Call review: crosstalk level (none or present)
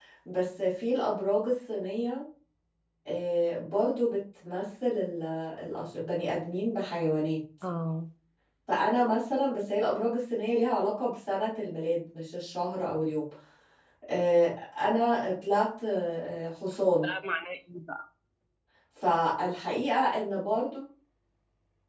none